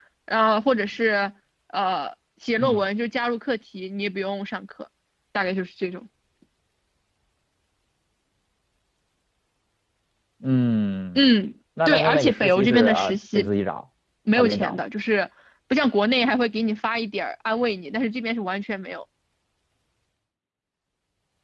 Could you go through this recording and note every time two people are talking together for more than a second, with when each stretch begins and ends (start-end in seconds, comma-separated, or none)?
11.9-13.5